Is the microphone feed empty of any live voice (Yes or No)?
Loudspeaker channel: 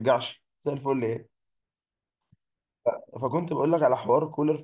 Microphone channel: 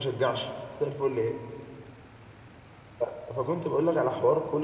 Yes